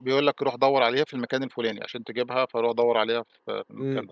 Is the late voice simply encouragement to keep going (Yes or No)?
No